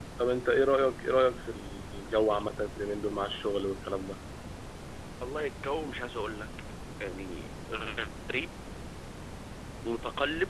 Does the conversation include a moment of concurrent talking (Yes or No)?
No